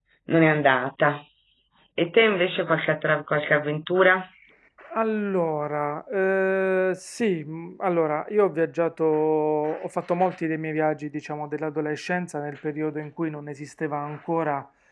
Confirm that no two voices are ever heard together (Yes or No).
Yes